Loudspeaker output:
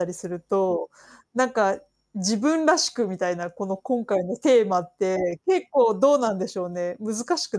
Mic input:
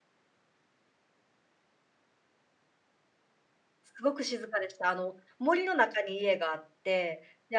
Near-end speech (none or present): present